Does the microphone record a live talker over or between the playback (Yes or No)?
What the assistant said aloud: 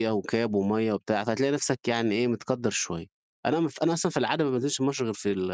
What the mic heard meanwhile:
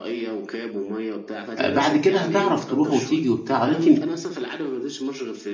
Yes